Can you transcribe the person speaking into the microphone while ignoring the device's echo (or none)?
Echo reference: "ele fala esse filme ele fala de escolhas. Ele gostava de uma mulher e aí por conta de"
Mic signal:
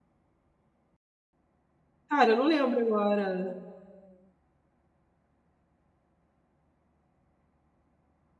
Cara, não lembro agora.